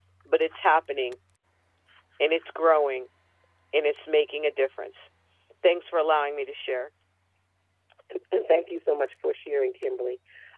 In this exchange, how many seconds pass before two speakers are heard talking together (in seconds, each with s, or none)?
none